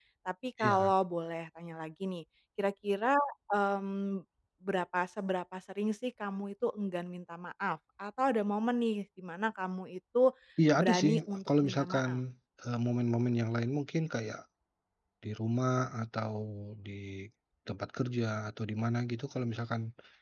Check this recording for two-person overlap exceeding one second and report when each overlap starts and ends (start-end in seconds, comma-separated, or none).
10.8-12.1